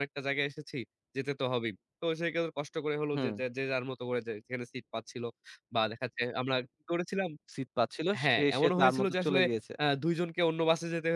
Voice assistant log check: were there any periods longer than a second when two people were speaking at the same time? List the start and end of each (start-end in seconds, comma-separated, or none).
8.2-9.4